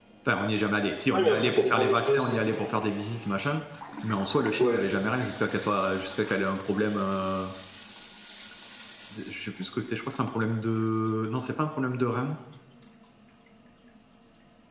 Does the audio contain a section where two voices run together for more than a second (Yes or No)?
Yes